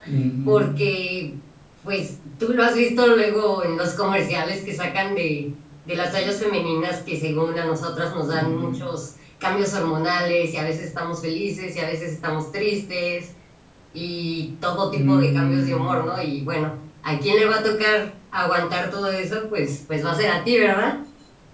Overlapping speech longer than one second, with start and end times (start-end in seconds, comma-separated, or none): 14.9-16.1